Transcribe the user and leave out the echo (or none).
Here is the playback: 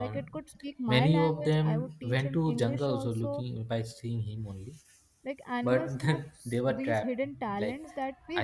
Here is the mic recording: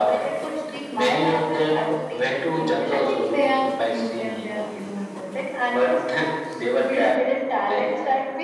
I think they are cute and they are adorable.